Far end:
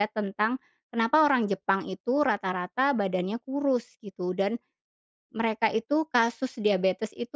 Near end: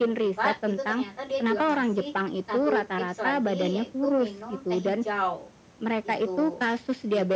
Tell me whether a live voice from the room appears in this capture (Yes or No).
Yes